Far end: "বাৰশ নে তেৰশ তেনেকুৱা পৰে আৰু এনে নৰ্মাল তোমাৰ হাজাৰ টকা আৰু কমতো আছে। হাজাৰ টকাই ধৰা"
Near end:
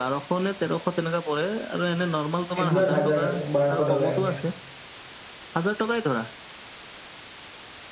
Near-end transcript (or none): এদিনত হাজাৰ বাৰশ টকা এনেকে